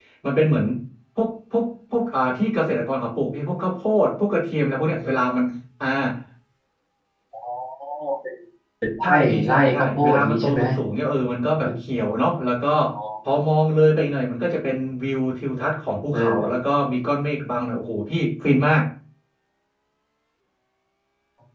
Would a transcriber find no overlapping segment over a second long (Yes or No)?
No